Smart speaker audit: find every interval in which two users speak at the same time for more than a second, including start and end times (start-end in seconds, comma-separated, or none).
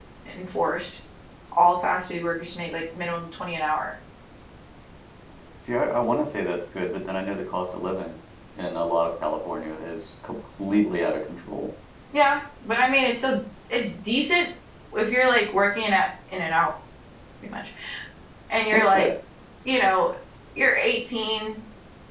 none